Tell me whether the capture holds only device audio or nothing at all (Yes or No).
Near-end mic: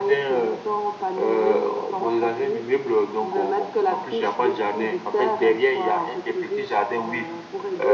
Yes